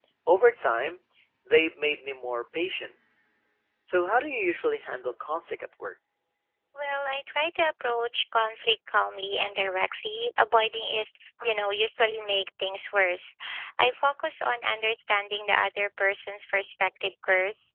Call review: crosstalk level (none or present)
none